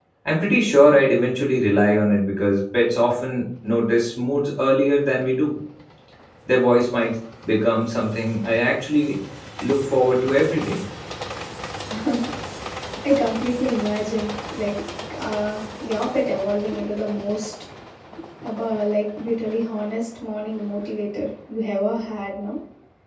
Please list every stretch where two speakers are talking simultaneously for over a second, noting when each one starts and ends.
none

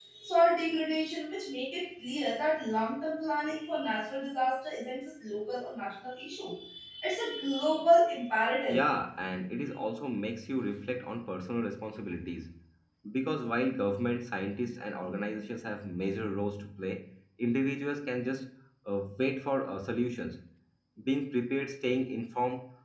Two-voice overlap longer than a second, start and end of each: none

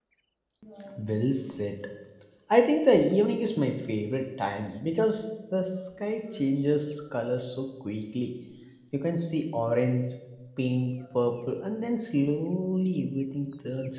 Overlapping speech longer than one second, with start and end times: none

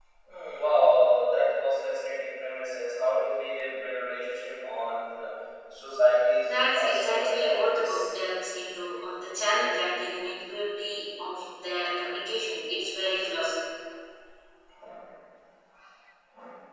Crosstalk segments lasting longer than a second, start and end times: 6.4-8.1

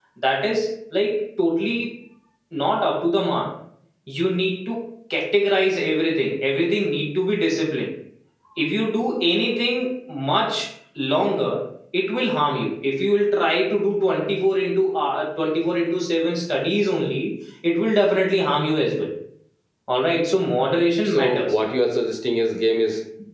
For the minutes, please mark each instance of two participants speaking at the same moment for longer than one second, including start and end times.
none

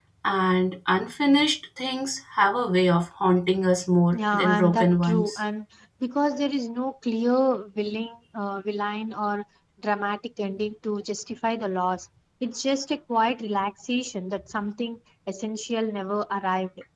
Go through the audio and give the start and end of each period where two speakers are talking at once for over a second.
4.1-5.4

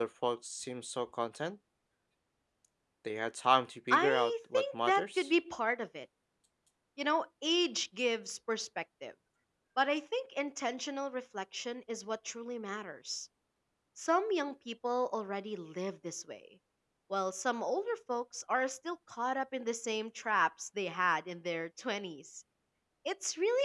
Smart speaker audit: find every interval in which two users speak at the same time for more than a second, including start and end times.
3.9-5.3

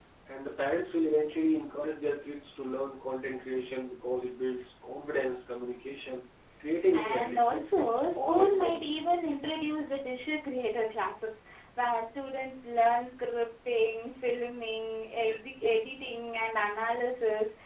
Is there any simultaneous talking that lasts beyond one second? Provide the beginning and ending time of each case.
6.9-9.0

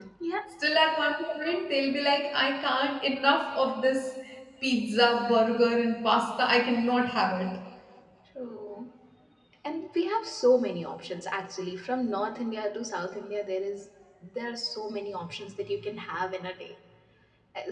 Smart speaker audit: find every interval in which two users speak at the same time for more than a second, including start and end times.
none

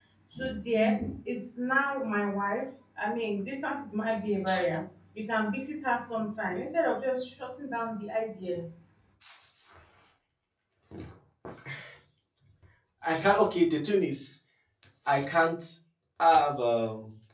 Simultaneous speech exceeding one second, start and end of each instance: none

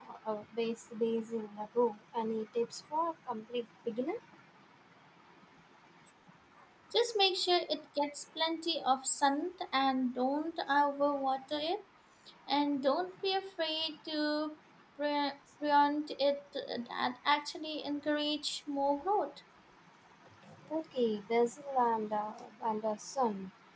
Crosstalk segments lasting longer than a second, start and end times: none

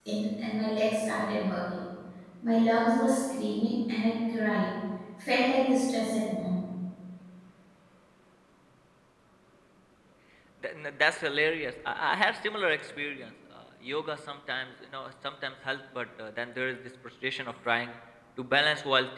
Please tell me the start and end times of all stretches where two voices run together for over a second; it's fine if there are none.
none

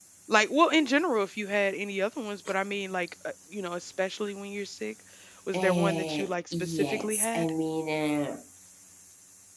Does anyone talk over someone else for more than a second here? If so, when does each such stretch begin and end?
5.5-7.5

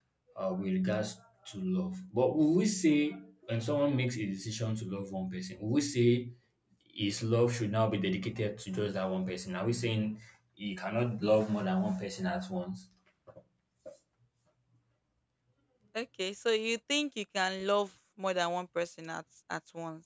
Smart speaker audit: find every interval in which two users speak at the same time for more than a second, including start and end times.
none

